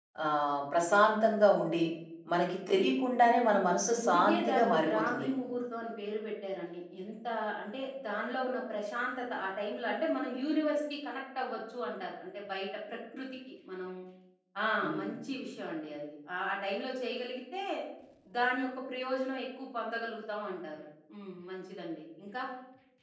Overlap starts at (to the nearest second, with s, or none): 4 s